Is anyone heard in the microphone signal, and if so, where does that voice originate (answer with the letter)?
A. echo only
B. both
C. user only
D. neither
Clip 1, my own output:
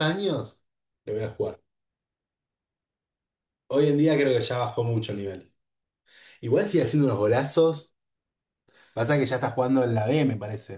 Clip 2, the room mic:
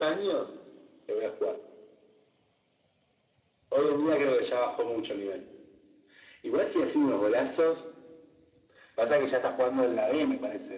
A